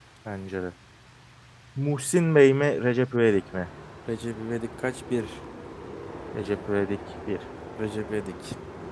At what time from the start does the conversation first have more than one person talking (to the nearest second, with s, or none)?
none